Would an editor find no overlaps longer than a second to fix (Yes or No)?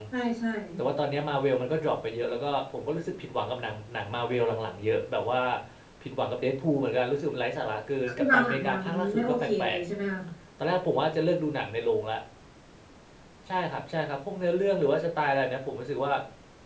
No